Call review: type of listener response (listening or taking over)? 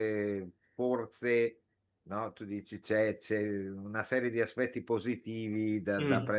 listening